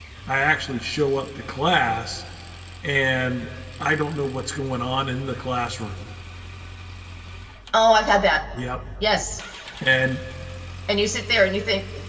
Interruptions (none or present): none